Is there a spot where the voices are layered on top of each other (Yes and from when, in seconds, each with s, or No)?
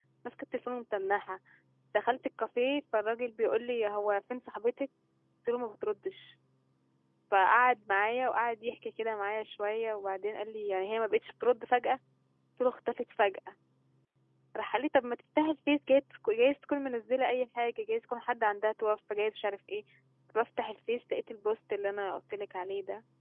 No